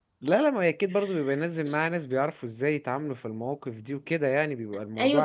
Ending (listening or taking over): taking over